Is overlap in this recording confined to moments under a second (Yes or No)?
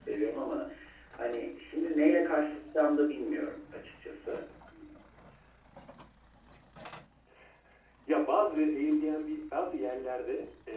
Yes